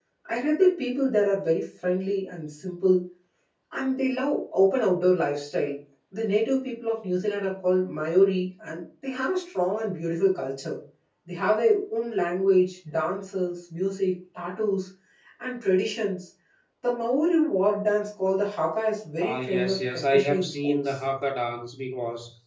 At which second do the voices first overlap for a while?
19.2 s

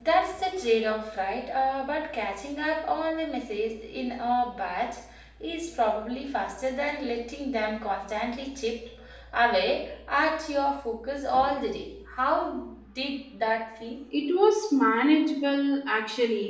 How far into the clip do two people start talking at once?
none

